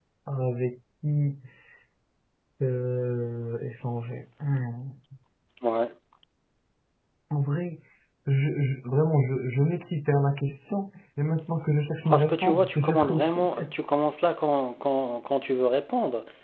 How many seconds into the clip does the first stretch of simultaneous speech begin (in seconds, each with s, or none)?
12.1 s